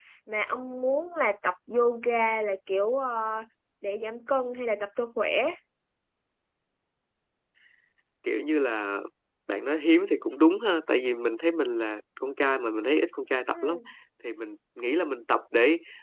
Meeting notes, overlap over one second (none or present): none